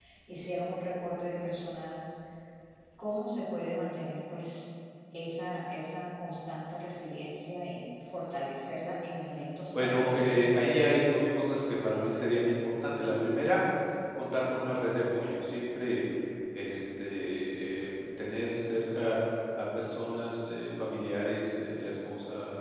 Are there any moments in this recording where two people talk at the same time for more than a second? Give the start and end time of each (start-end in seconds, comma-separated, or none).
9.8-11.0